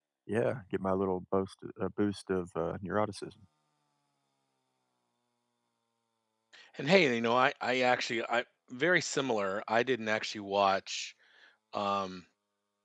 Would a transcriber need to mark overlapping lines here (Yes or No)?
No